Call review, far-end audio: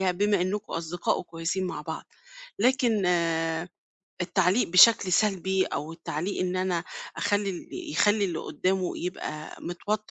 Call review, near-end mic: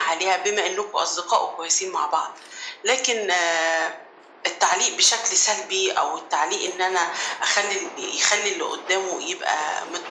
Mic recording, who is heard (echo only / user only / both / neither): echo only